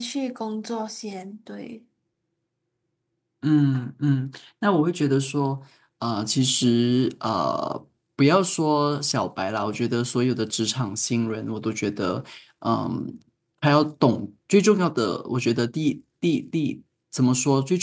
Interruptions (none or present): none